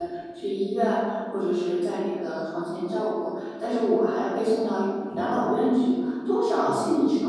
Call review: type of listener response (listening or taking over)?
listening